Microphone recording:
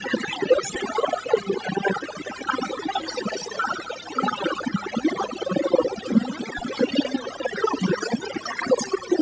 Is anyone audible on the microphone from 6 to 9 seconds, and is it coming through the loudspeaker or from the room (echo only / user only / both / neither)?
both